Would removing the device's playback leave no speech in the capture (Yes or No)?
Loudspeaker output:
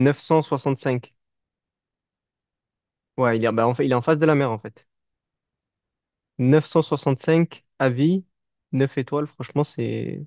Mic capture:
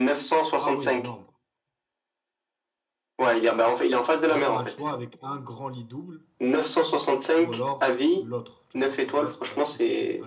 No